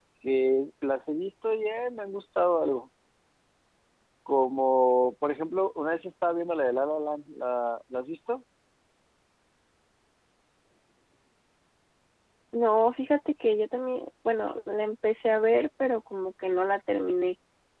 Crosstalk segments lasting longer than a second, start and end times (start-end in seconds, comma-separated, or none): none